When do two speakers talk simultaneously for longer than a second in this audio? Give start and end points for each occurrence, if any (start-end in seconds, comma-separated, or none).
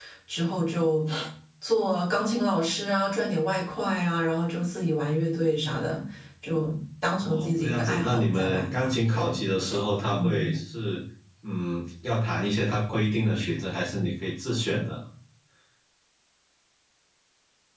7.2-9.4